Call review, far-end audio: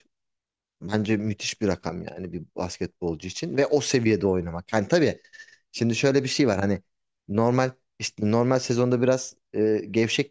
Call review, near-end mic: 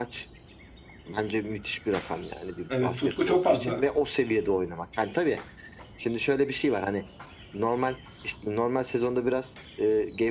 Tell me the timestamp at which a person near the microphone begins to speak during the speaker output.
2.7 s

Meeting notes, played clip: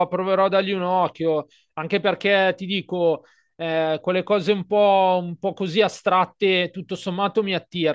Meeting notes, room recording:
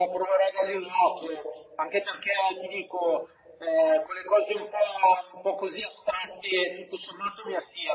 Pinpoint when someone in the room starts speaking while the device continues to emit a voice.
none

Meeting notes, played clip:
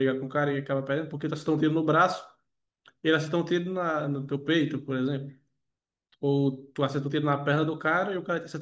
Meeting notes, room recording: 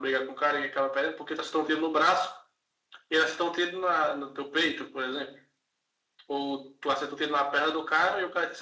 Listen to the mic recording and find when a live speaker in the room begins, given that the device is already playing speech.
none

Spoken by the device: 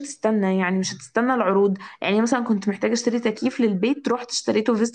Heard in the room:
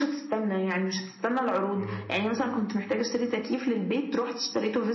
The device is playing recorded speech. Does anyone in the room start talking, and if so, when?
1.8 s

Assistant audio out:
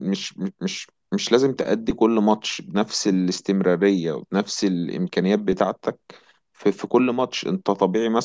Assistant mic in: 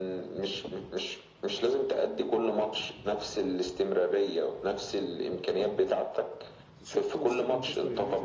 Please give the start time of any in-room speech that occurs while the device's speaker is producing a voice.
6.7 s

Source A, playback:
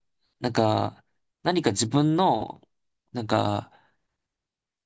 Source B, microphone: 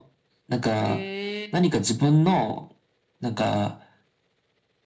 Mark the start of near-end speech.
0.8 s

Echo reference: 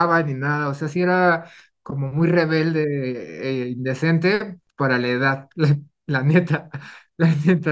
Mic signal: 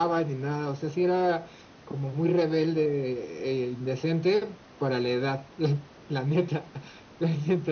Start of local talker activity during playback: none

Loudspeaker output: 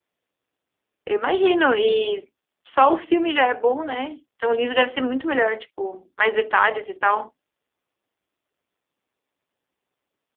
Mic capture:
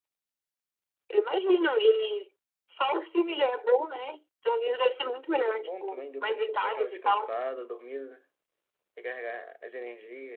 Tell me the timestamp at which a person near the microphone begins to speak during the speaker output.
5.5 s

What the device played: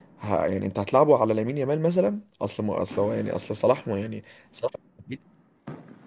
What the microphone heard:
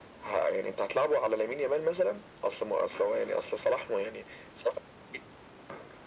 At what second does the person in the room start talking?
none

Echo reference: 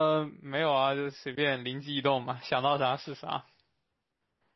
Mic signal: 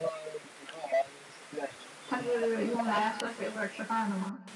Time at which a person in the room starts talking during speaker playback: 2.1 s

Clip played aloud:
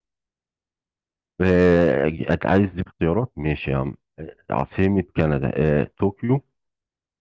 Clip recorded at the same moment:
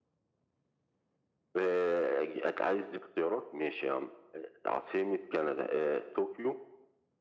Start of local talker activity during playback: none

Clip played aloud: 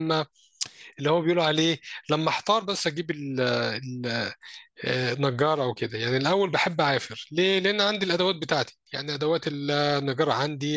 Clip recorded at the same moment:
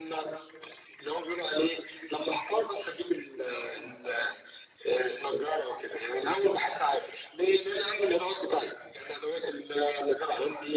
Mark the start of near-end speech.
none

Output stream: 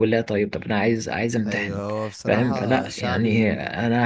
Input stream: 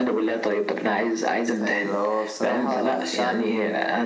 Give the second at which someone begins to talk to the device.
none

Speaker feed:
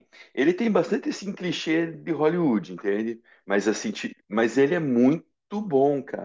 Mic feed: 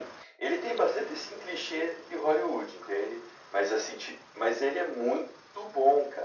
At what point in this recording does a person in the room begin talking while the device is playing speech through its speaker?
none

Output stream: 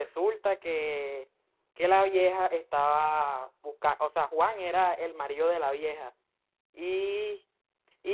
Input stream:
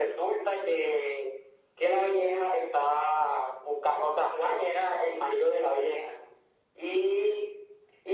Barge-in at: none

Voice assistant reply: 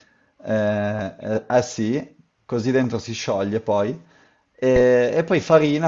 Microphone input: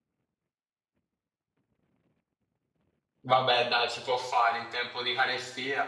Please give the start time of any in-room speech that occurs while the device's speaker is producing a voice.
3.2 s

